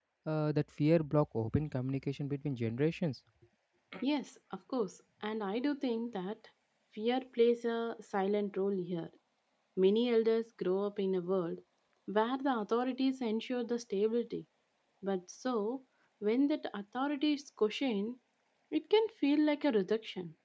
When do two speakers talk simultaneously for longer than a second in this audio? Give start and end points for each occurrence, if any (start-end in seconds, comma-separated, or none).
none